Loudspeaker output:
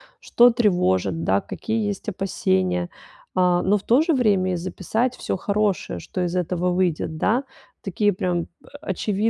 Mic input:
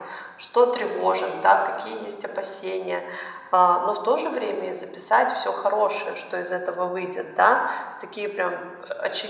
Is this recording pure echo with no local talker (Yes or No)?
Yes